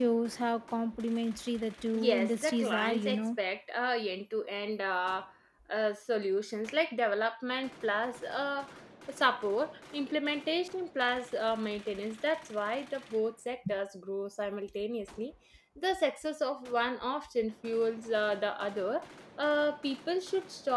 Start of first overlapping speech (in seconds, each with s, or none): 1.9 s